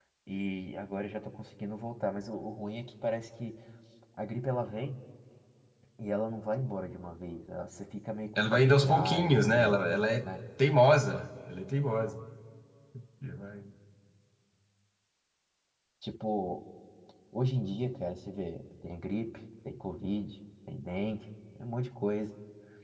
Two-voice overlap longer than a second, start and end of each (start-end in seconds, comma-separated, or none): 8.4-9.8